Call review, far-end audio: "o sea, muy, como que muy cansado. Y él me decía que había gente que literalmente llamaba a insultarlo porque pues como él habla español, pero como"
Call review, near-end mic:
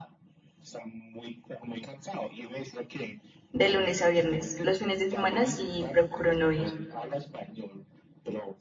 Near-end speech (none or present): present